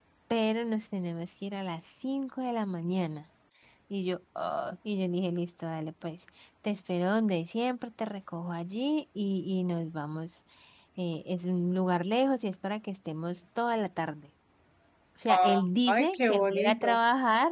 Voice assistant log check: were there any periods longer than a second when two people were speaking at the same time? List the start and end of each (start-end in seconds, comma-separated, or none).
15.3-17.0